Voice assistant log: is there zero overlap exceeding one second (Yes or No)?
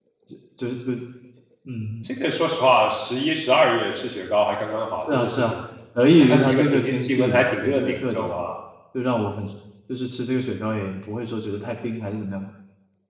No